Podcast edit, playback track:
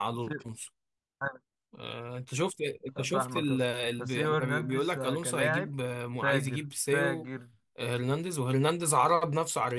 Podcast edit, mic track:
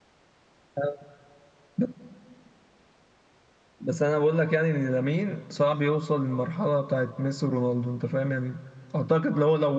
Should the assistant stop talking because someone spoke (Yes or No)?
Yes